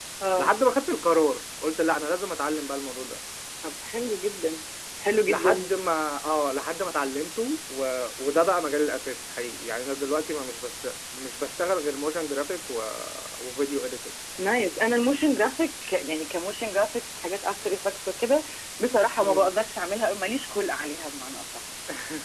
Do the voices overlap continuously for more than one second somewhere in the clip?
No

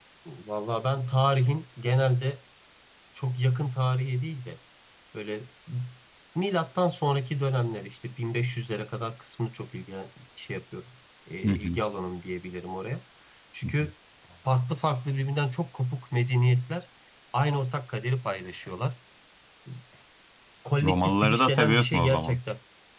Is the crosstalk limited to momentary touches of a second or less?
No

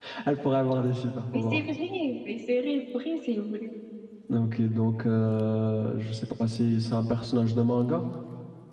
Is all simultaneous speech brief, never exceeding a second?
Yes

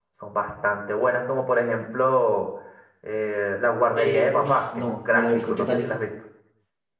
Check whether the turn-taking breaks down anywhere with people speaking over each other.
Yes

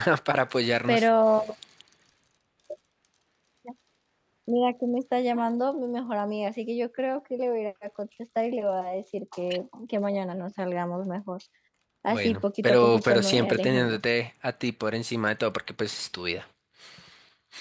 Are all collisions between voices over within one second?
No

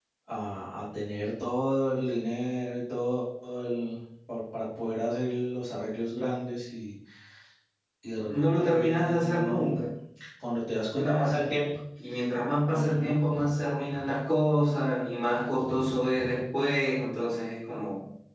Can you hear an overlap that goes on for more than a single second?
Yes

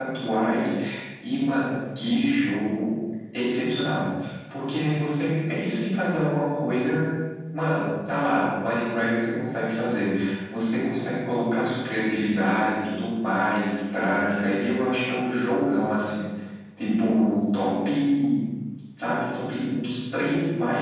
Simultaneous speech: No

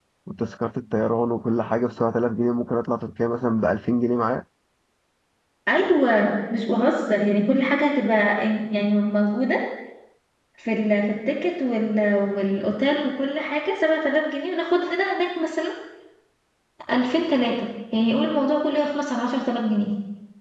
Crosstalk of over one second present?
No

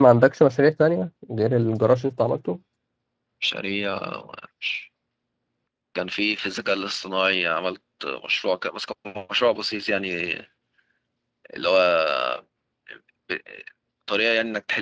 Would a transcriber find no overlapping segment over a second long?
Yes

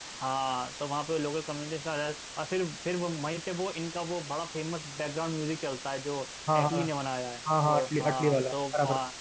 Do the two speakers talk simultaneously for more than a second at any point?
Yes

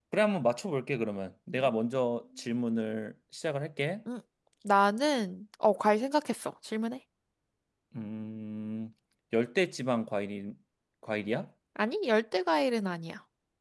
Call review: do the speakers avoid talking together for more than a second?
Yes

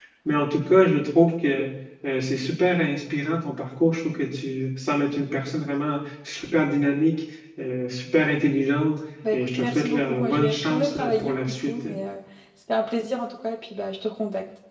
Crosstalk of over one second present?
Yes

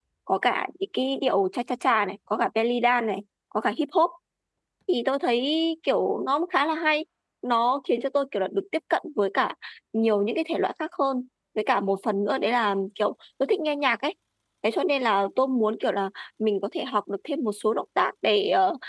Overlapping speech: No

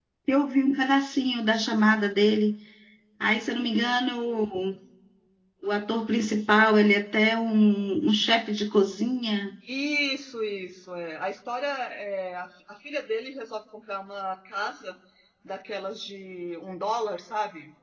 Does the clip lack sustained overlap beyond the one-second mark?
Yes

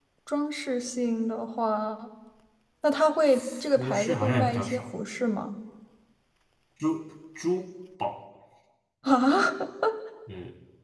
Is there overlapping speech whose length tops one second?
Yes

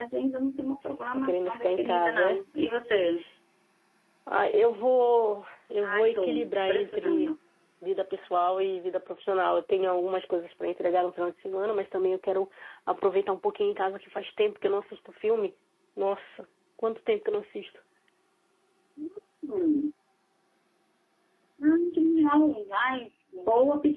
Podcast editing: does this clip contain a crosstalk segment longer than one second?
Yes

